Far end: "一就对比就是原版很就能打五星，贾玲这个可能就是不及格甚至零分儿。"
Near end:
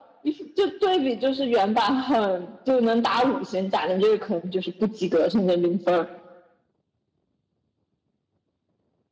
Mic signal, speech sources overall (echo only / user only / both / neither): echo only